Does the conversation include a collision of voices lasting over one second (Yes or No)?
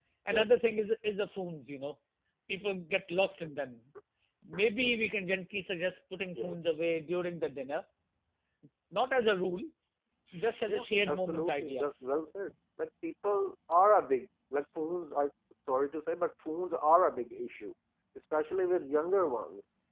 Yes